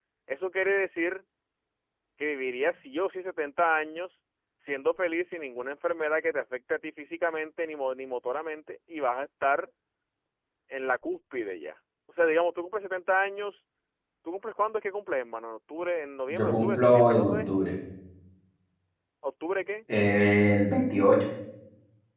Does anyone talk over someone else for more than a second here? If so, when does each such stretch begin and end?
16.3-17.5

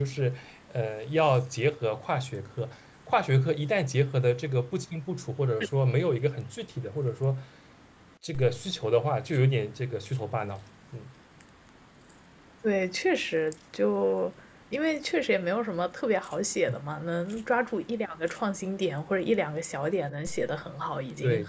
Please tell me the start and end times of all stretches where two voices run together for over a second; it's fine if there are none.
none

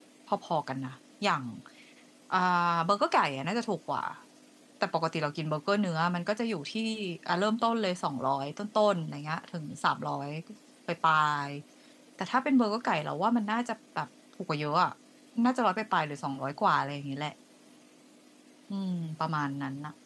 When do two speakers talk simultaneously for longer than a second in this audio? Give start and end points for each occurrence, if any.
none

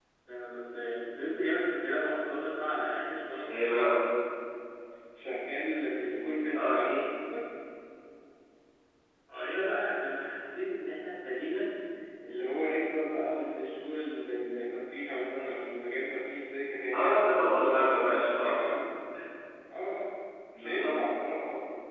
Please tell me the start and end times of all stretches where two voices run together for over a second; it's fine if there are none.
16.9-18.6

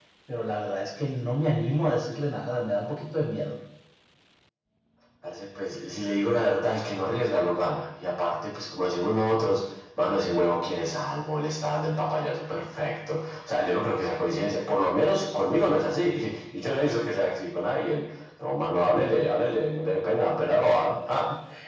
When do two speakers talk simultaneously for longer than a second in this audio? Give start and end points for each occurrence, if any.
none

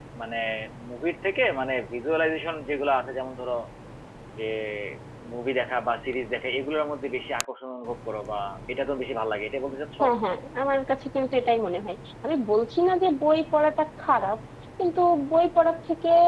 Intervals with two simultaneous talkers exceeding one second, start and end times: none

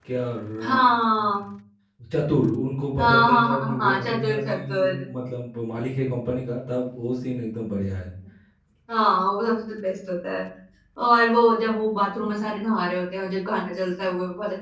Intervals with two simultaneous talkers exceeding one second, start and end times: 3.0-5.1

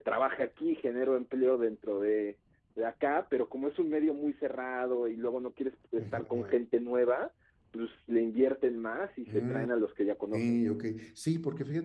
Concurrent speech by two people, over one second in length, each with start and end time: none

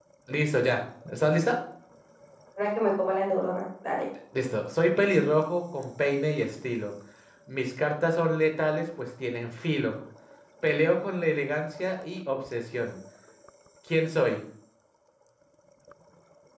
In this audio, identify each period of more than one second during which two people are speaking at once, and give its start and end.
none

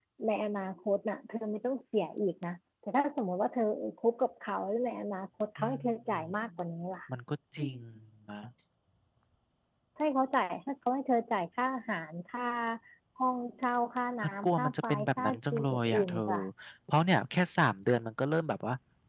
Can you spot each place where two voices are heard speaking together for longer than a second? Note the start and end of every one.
14.2-16.2

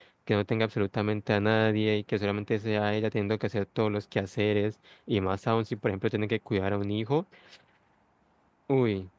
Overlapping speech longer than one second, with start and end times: none

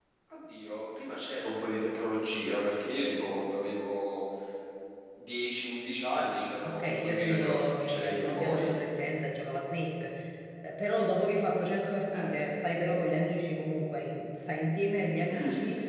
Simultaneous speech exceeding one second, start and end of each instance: 6.6-8.7

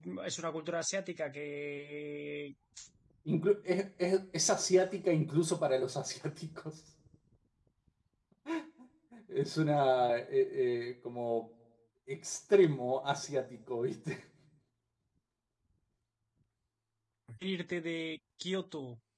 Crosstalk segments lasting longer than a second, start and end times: none

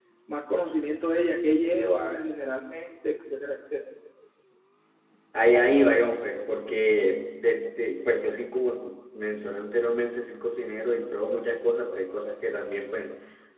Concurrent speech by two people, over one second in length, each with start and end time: none

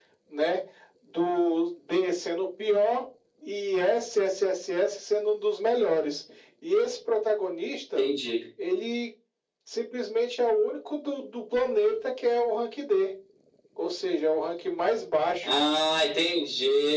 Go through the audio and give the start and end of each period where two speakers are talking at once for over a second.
none

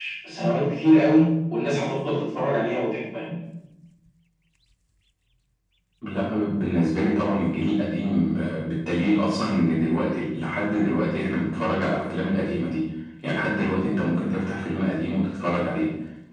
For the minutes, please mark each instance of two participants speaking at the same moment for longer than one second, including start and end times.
none

